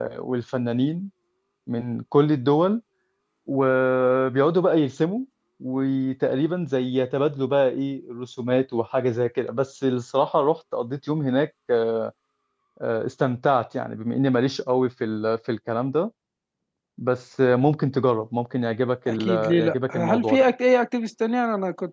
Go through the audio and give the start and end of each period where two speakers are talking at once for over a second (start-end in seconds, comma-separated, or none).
19.1-20.5